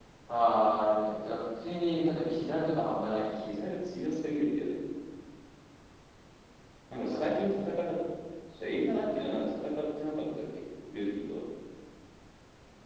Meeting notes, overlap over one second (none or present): none